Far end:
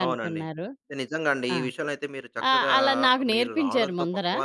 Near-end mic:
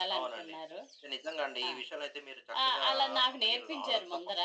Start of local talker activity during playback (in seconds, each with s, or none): none